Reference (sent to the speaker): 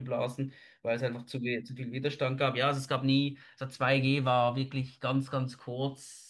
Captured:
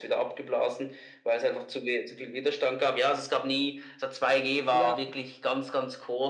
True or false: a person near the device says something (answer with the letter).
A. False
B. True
B